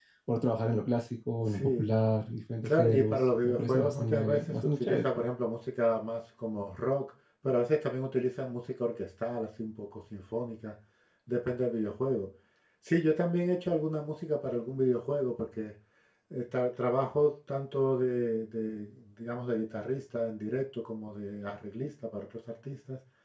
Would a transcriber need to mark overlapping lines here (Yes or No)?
Yes